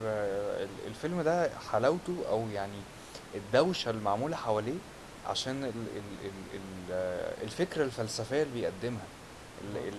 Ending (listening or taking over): listening